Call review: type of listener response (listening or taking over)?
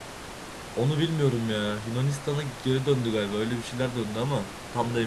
taking over